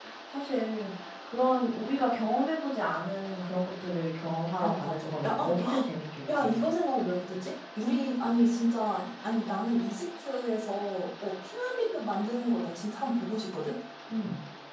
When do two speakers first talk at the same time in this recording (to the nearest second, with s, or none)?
5 s